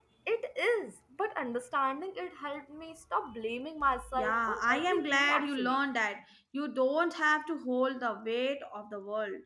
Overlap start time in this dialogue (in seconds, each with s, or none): 4.1 s